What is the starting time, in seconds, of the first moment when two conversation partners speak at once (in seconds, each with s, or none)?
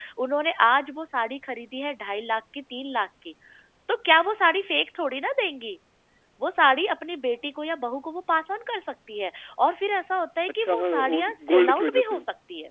10.6 s